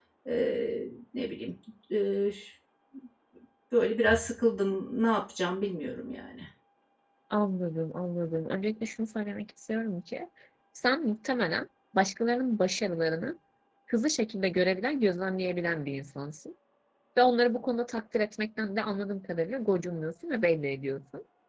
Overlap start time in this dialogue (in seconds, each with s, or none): none